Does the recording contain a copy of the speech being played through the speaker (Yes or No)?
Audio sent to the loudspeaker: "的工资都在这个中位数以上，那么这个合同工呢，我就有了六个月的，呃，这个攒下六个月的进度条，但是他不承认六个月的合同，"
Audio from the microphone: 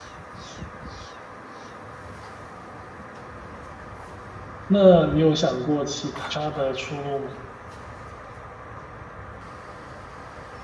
No